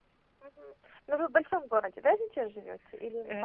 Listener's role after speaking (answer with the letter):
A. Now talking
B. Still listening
A